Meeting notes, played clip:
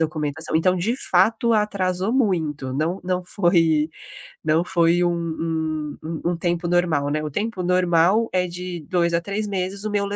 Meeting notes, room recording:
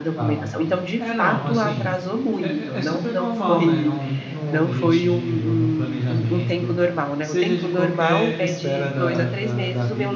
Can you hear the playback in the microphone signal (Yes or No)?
Yes